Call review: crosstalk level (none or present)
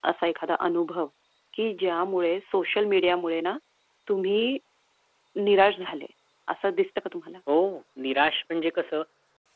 none